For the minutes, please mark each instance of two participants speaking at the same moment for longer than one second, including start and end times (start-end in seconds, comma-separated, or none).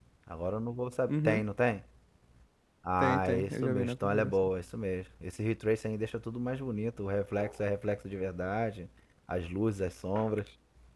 3.0-4.3